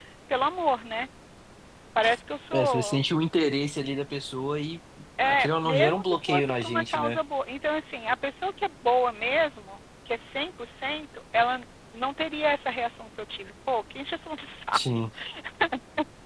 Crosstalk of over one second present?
Yes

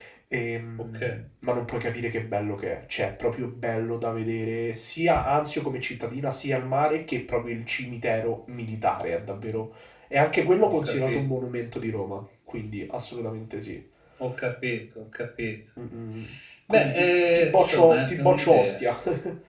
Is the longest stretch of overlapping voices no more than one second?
No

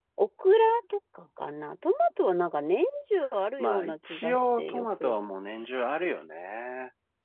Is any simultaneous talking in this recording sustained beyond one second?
Yes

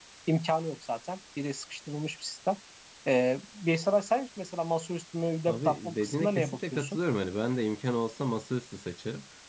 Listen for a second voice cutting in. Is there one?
Yes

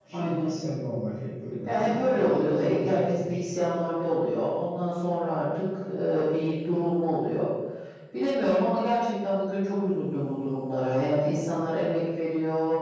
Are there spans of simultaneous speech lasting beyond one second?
Yes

